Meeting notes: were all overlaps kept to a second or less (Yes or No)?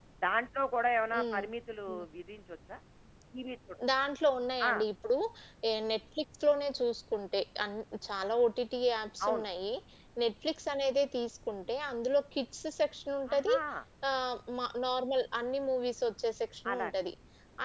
Yes